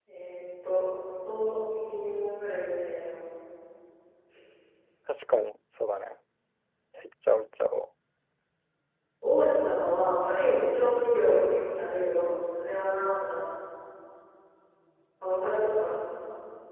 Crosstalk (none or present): none